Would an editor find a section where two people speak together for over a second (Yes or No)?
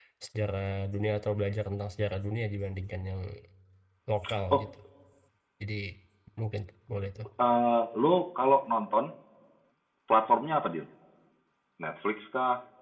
No